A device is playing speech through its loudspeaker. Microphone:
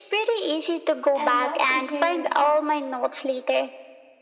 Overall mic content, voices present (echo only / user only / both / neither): both